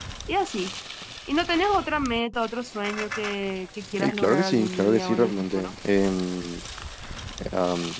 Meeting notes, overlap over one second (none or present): present